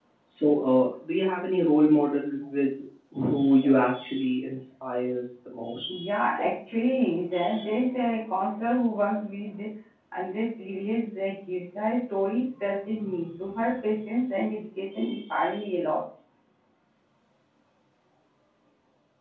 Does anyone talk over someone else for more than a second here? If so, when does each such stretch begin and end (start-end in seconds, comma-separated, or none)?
none